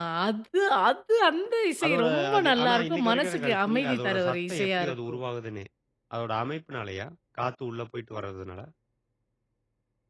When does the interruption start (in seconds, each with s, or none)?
1.8 s